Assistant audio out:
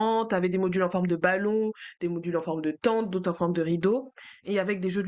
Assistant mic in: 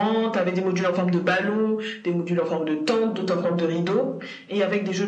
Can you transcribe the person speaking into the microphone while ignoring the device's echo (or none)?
none